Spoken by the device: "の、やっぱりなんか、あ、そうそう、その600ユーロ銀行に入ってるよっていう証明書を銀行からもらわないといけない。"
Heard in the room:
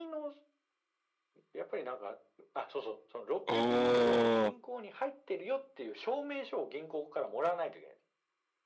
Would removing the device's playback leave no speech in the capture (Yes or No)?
No